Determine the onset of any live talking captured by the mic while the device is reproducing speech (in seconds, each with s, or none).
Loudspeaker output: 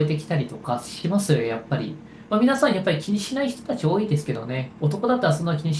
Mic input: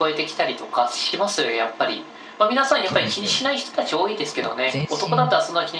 2.8 s